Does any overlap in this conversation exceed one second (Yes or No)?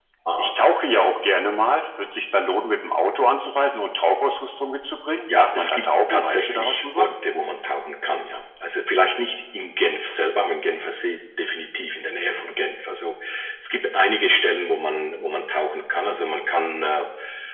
Yes